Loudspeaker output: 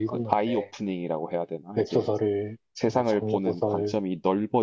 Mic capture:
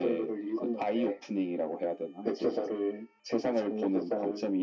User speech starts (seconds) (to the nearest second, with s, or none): none